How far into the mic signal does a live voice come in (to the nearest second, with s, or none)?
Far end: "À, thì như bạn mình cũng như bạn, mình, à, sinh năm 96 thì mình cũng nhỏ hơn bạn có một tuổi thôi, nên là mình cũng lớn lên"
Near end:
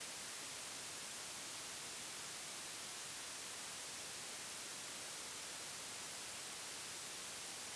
none